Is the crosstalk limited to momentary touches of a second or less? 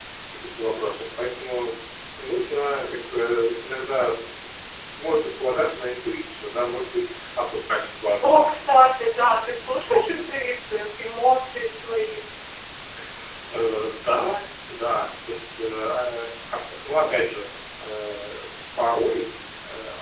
Yes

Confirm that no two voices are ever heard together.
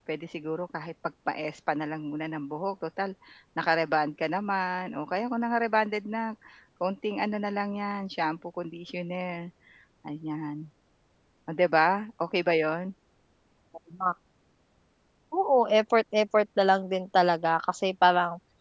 Yes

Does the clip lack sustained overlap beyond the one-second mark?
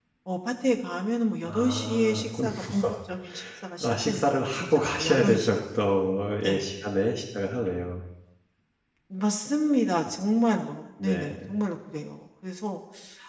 No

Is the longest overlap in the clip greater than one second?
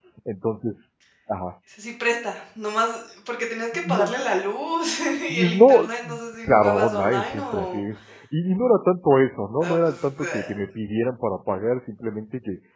Yes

